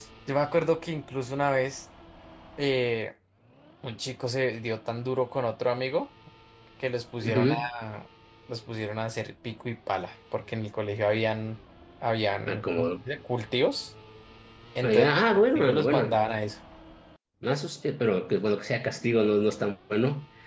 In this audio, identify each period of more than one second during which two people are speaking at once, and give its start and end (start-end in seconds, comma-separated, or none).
14.8-16.1